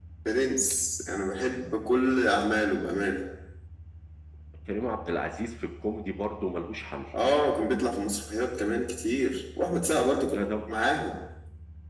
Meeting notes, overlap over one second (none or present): none